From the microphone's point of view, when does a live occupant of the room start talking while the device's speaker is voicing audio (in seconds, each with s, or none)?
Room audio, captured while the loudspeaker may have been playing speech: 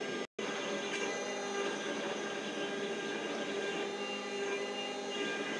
none